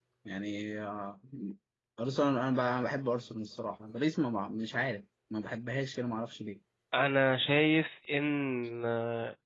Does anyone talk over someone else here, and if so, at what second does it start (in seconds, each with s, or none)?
none